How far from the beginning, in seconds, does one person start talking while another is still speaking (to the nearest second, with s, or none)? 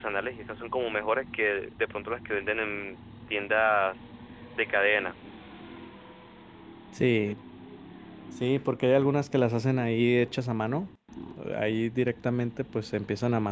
none